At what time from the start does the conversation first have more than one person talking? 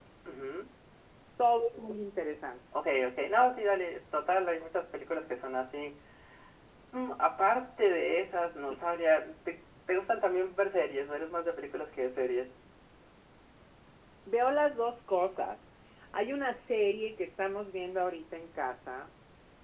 none

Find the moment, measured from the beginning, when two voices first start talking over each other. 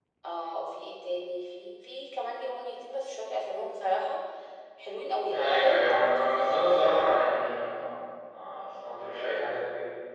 5.3 s

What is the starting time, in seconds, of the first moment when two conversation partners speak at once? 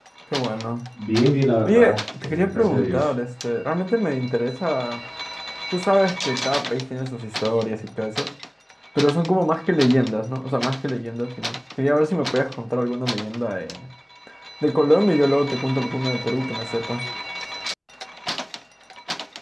1.6 s

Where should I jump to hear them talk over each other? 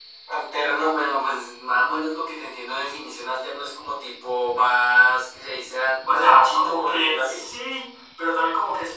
6.1 s

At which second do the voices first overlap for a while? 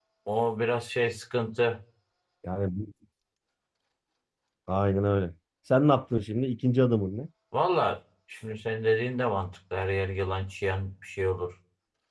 none

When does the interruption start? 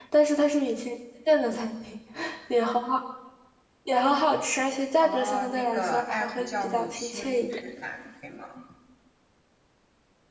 5.0 s

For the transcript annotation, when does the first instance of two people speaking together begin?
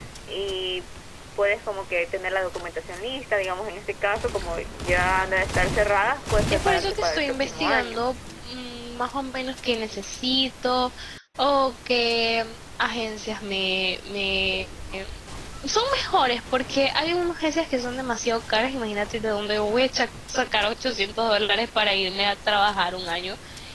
6.5 s

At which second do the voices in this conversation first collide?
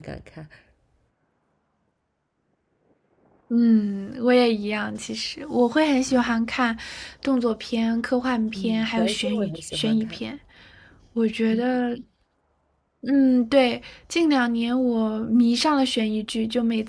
8.6 s

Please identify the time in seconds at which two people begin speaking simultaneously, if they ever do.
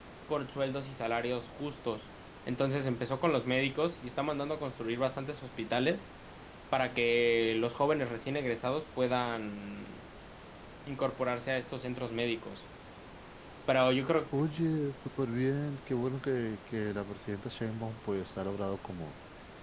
none

